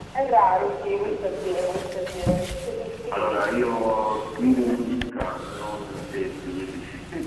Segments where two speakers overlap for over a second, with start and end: none

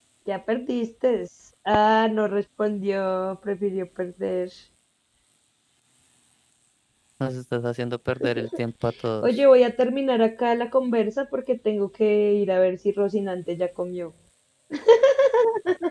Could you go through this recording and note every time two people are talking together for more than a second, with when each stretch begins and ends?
none

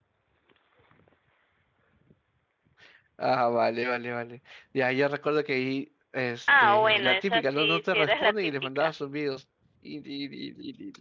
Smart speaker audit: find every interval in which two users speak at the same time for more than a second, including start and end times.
6.5-8.9

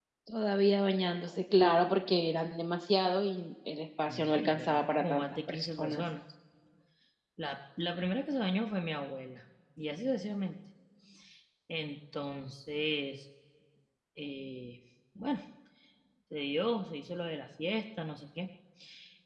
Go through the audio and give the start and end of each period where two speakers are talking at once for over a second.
4.1-6.0

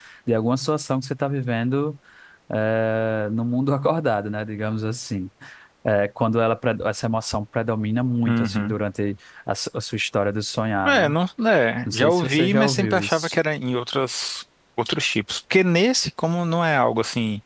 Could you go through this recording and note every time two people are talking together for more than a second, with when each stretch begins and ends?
11.9-13.4

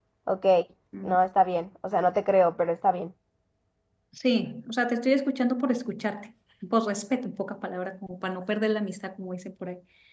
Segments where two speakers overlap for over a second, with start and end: none

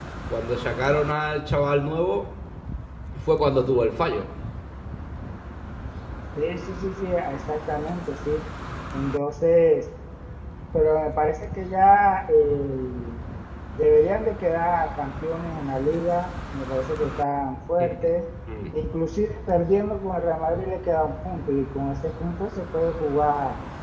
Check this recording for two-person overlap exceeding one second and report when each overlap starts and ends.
none

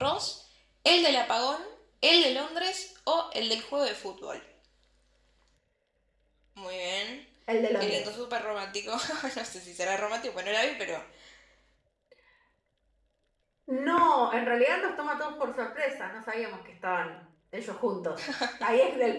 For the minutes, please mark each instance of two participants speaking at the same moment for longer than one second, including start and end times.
none

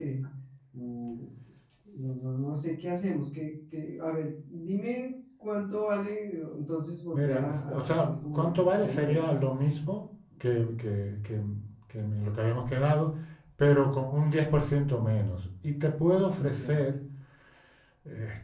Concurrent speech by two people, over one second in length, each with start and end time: 7.1-9.3

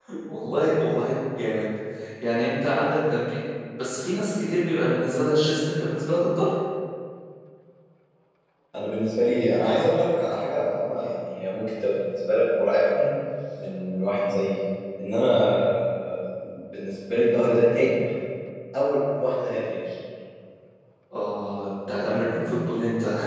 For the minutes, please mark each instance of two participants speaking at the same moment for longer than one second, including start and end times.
none

